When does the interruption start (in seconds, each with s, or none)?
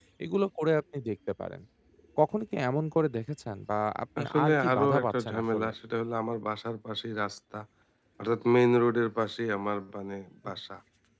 4.2 s